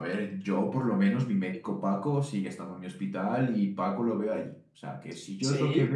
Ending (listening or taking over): taking over